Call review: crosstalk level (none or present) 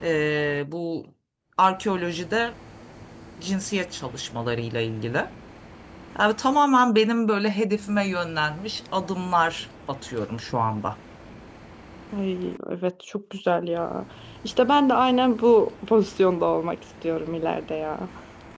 none